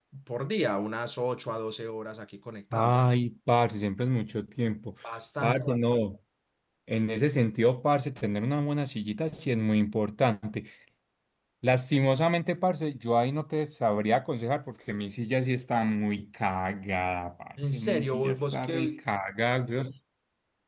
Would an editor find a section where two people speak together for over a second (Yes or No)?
Yes